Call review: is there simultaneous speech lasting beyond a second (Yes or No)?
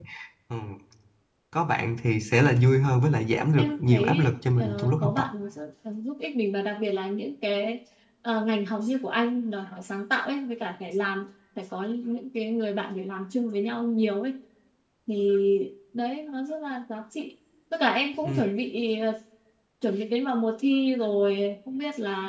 Yes